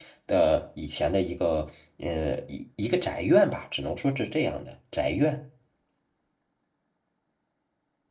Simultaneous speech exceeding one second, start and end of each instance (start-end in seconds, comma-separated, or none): none